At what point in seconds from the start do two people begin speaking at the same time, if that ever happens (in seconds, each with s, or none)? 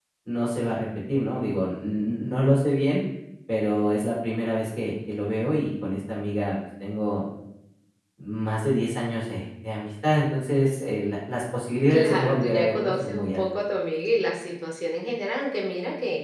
11.9 s